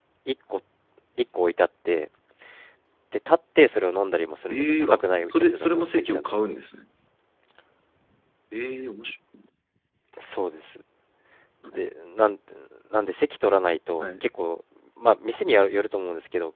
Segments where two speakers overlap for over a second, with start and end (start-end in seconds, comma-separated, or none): 4.5-6.4